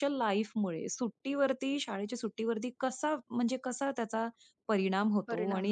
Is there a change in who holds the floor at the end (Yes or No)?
No